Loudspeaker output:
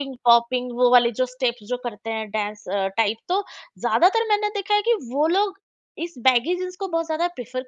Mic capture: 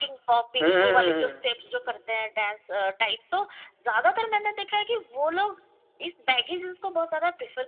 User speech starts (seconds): 0.6 s

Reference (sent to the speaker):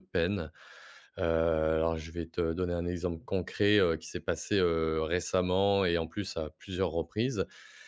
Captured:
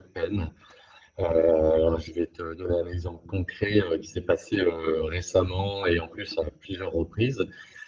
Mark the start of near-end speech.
none

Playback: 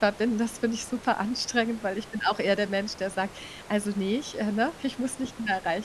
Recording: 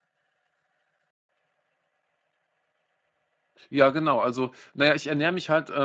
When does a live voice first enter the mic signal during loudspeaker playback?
3.7 s

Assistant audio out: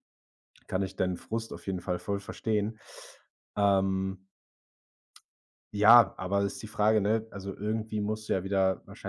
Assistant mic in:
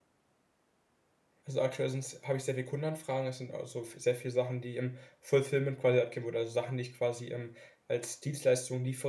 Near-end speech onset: 1.4 s

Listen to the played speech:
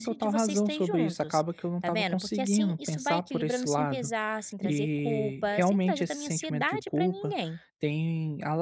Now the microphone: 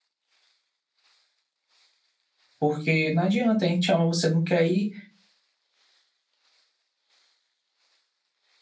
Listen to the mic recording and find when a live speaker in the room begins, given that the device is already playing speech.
2.6 s

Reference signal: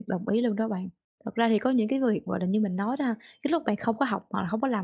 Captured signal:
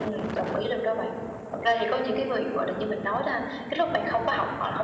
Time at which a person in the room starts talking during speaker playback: none

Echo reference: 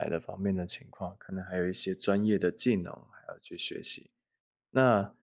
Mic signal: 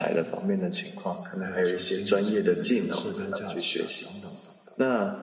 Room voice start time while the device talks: 1.4 s

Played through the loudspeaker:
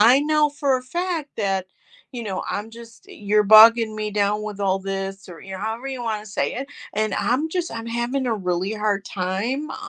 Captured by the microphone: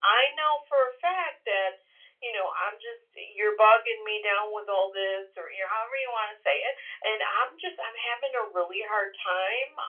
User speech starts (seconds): none

